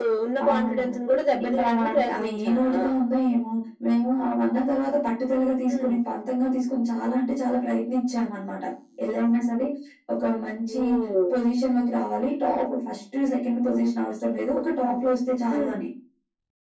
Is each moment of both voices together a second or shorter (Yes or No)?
No